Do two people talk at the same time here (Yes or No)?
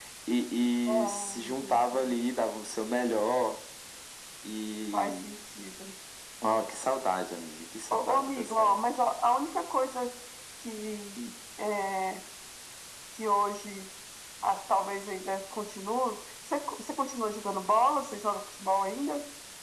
Yes